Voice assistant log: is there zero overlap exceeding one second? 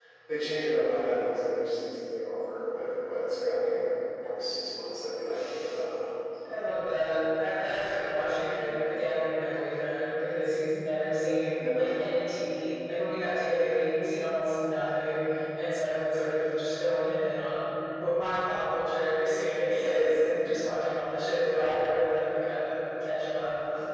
Yes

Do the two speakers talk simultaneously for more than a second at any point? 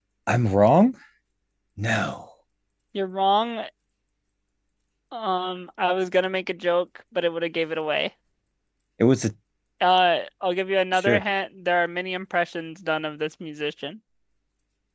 No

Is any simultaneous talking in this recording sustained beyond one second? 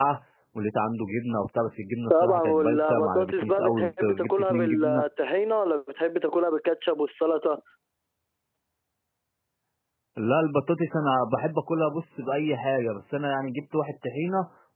Yes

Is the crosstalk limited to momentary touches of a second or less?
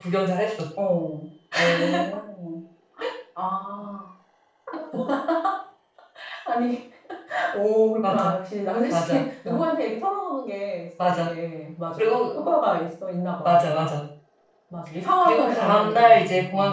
No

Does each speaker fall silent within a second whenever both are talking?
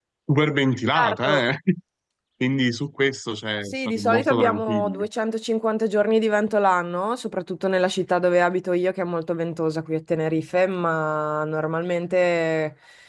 No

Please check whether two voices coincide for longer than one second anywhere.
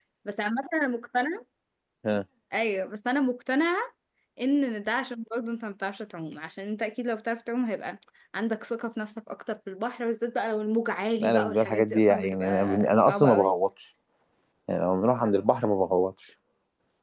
Yes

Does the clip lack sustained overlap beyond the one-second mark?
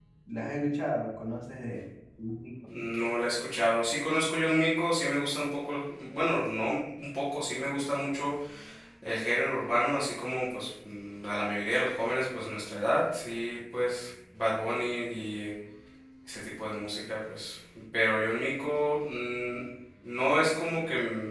Yes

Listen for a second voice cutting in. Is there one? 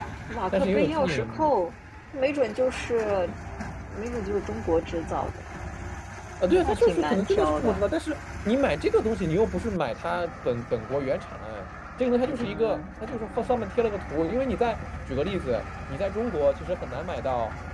Yes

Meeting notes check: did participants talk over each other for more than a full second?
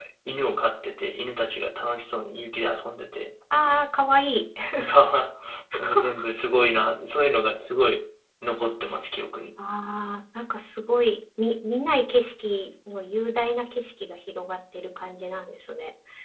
No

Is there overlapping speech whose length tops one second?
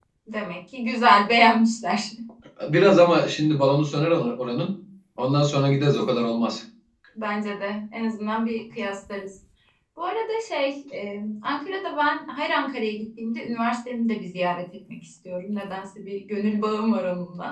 No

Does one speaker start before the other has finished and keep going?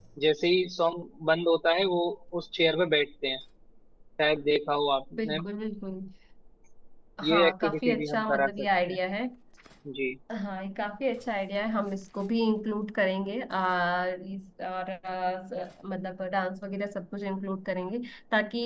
Yes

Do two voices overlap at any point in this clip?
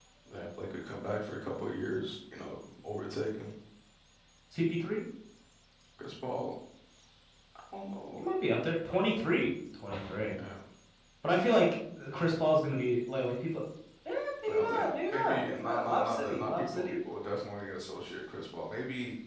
Yes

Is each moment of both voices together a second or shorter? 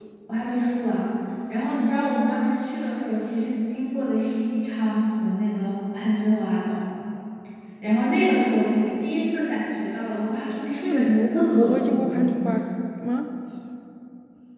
No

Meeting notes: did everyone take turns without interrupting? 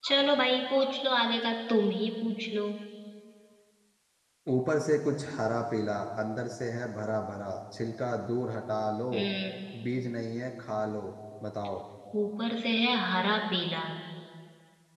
Yes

